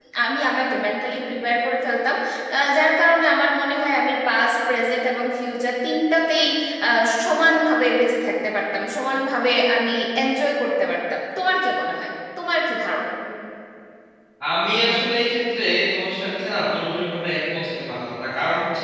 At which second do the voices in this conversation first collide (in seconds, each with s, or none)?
none